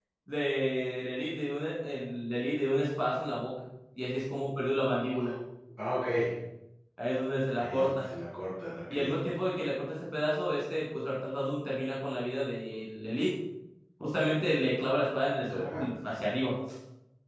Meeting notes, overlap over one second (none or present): none